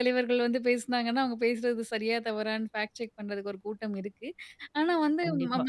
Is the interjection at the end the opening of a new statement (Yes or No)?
No